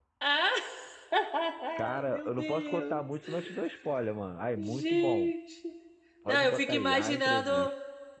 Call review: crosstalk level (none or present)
present